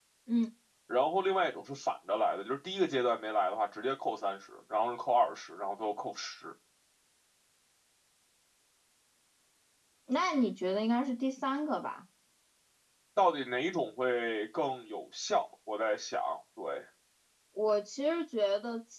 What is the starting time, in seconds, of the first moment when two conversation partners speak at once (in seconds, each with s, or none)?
none